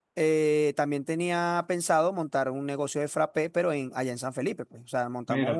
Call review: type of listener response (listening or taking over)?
taking over